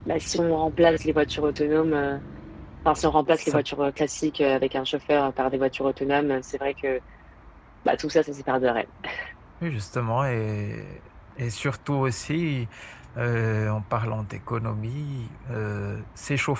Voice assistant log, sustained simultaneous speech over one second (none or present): none